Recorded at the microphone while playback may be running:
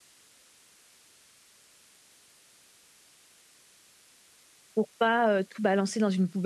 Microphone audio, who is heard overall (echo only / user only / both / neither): user only